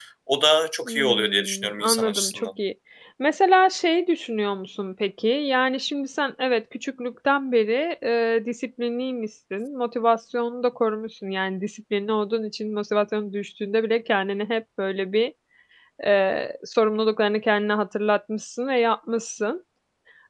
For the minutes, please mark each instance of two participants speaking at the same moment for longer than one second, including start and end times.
0.8-2.5

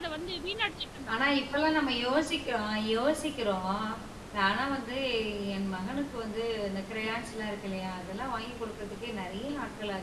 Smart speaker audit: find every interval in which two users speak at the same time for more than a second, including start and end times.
none

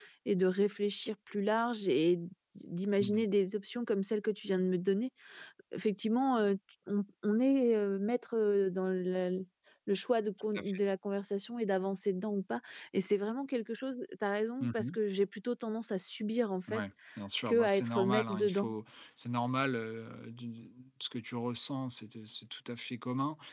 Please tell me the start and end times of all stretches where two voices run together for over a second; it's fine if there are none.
17.5-18.7

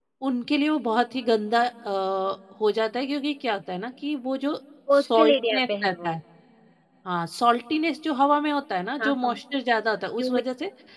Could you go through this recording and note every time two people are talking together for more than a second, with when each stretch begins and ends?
4.9-6.2

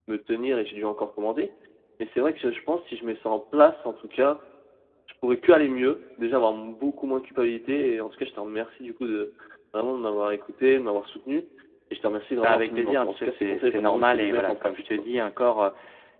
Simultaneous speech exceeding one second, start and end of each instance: 12.4-14.8

